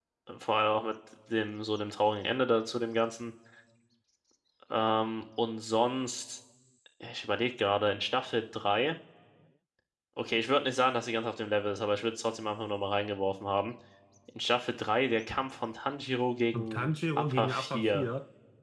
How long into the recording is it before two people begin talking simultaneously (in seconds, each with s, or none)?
16.5 s